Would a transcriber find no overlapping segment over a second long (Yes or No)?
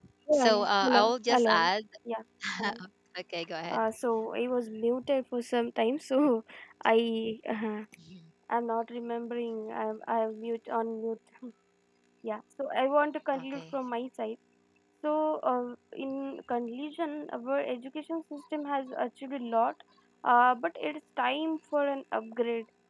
No